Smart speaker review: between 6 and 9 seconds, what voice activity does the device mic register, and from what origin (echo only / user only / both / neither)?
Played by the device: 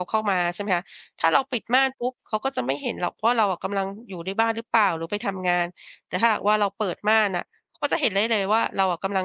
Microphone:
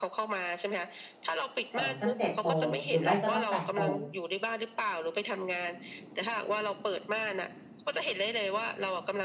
echo only